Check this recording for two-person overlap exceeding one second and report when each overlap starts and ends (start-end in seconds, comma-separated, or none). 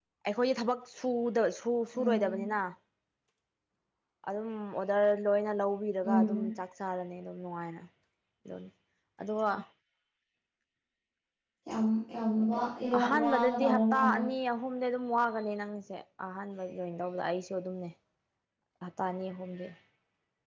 13.0-14.2